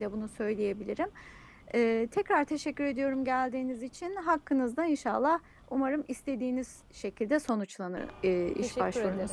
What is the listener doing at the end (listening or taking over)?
taking over